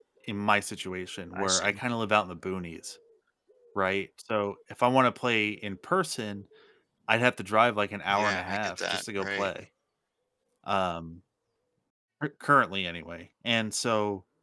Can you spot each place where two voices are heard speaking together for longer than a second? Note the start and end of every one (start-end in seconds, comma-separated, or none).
8.1-9.5